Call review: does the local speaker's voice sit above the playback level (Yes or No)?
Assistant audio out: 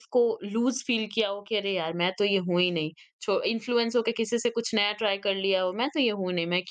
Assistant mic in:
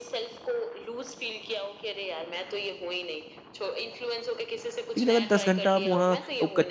Yes